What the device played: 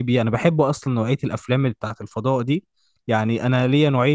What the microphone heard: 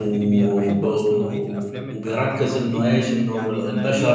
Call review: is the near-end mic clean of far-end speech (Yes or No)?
No